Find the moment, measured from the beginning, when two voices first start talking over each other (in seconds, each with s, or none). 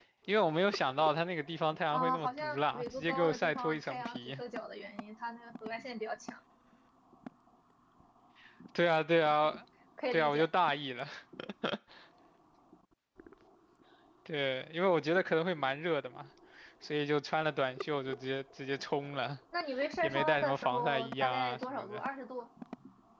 1.9 s